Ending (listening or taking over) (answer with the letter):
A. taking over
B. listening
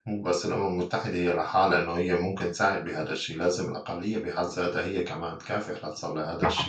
B